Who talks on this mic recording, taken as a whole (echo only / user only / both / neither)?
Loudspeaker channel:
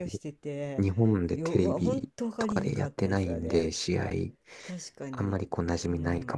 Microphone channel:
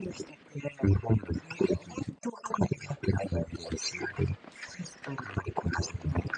echo only